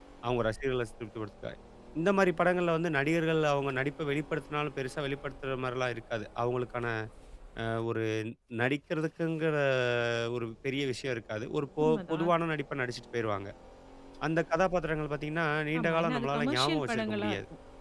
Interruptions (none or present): present